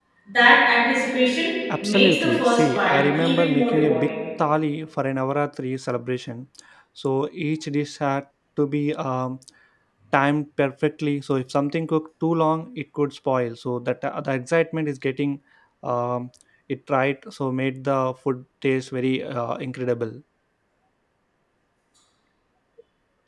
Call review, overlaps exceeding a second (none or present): present